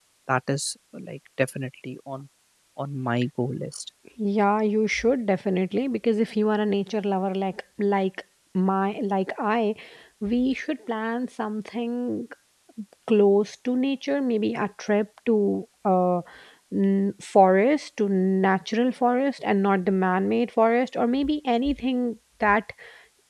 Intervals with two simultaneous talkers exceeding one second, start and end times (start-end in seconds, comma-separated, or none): none